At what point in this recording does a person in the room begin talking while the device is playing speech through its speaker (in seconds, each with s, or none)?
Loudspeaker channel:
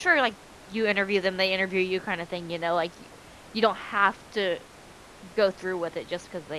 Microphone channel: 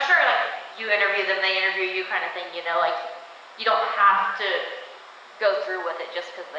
none